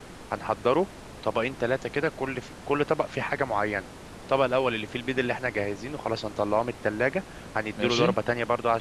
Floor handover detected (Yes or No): No